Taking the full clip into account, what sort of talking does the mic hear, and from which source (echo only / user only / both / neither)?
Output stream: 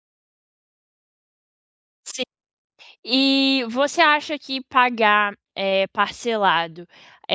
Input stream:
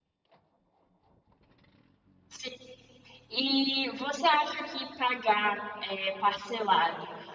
echo only